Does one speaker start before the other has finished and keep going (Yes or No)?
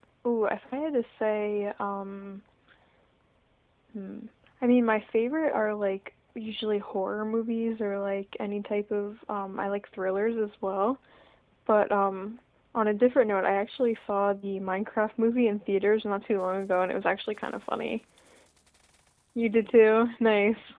No